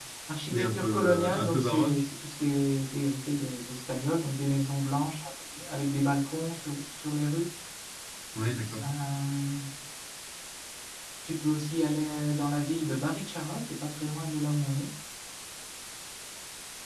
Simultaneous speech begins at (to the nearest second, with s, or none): 1 s